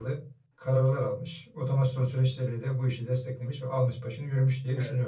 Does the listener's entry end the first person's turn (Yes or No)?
Yes